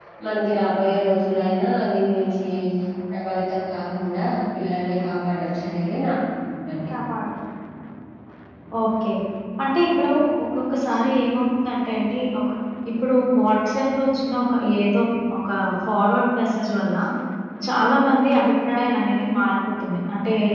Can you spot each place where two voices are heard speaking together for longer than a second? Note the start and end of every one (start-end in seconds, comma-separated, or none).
none